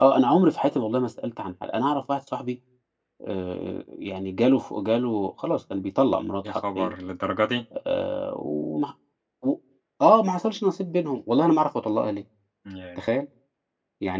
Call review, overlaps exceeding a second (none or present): none